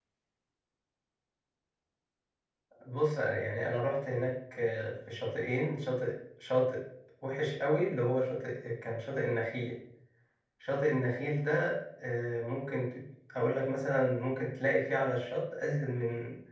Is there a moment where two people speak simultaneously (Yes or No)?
No